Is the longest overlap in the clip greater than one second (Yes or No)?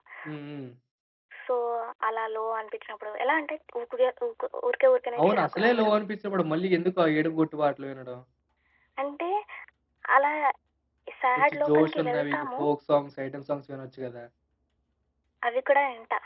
Yes